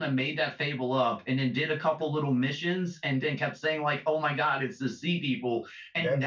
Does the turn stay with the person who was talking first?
No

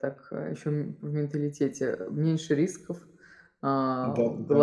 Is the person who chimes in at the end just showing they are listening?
Yes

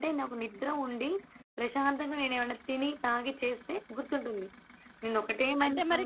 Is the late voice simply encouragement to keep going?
No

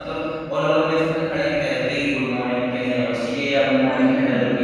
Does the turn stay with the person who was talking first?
Yes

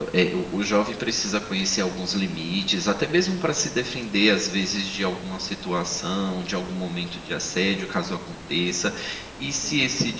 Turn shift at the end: No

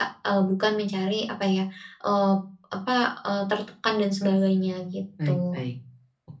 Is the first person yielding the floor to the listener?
Yes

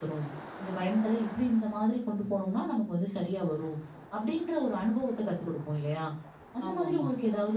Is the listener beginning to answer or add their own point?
No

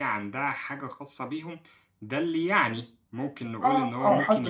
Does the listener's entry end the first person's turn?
Yes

